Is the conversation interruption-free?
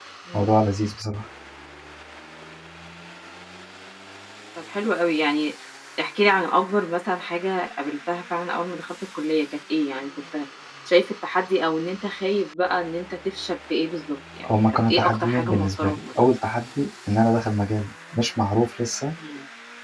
No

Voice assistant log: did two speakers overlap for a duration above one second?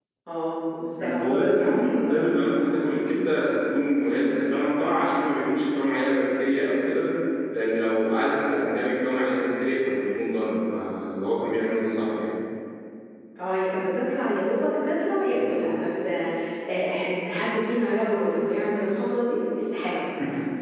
Yes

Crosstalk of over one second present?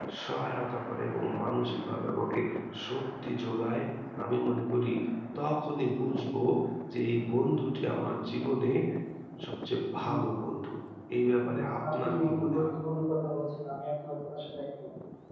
Yes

